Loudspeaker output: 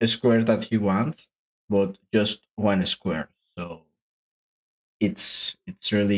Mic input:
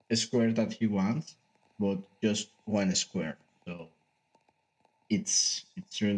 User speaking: No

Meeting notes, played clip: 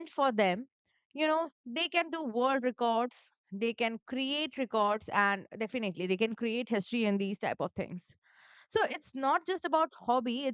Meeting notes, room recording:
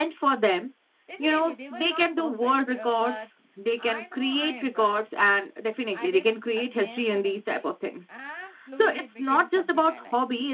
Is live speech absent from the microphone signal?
No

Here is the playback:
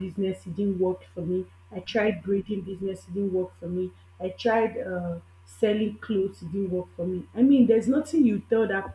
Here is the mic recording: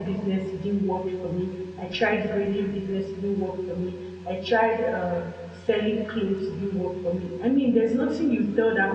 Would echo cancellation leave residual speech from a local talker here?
No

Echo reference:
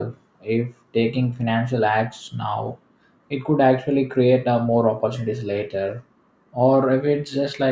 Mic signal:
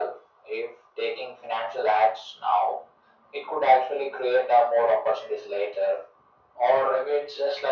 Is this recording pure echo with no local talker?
Yes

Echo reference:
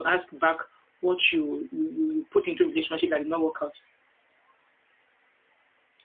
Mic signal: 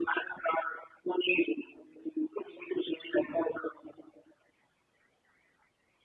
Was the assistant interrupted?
No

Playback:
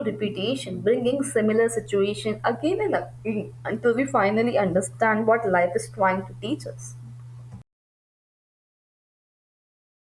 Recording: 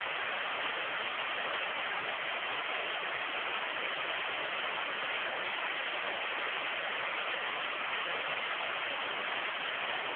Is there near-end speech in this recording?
No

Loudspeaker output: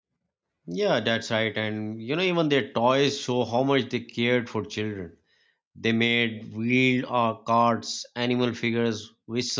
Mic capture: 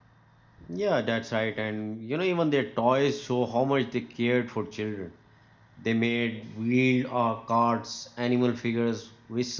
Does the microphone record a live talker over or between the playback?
No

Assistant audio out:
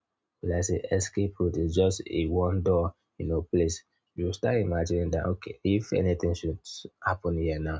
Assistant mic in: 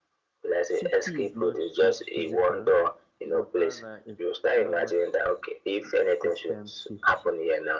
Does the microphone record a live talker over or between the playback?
Yes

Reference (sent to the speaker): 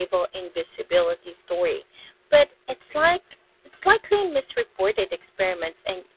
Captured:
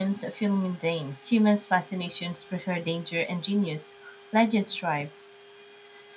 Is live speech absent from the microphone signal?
No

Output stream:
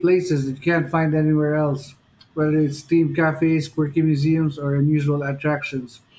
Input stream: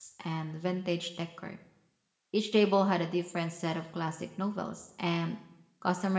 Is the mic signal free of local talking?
No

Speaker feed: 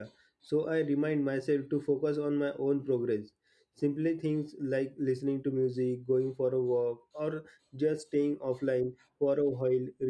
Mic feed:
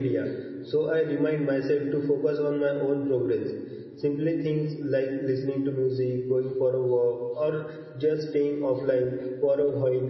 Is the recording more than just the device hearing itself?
No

